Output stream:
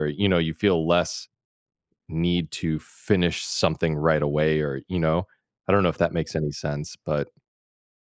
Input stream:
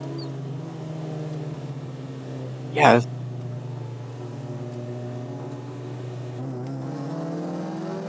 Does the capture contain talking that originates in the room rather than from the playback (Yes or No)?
Yes